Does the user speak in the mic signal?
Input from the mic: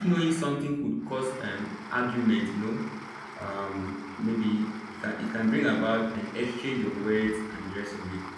Yes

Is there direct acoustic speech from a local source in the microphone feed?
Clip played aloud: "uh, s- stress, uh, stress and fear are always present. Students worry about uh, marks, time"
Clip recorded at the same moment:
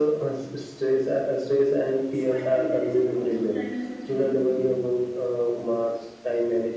Yes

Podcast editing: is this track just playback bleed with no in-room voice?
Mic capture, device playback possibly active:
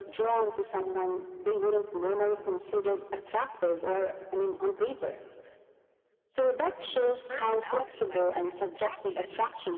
No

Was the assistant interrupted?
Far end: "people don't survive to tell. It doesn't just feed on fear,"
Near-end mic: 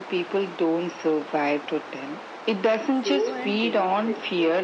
Yes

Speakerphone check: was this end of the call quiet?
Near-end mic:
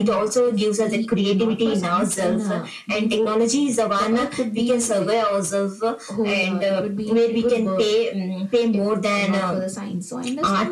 Yes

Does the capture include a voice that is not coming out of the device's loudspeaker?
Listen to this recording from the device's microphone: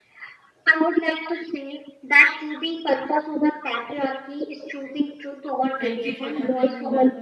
Yes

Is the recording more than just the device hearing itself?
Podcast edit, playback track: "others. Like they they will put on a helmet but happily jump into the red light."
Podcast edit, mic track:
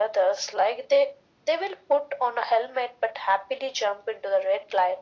No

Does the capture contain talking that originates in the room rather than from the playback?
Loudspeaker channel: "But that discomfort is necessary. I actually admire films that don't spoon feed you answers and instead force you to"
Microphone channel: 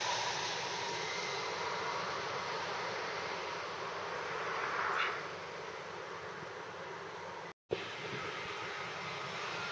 No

